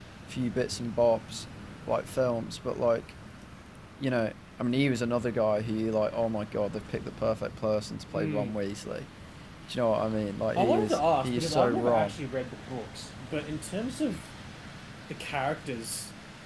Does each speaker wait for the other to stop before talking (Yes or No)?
No